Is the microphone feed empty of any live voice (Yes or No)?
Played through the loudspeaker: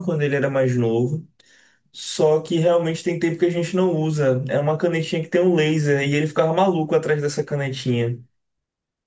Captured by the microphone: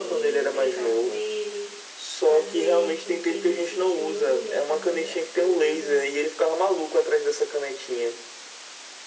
No